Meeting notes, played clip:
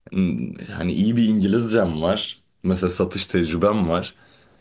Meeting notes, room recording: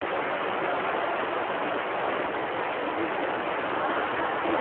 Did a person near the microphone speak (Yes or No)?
No